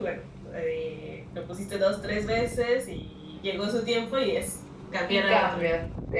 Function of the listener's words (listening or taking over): taking over